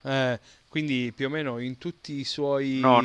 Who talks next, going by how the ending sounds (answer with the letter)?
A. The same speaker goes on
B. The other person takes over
B